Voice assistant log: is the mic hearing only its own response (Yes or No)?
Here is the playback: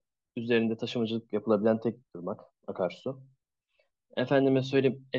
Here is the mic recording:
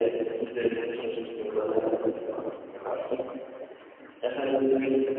Yes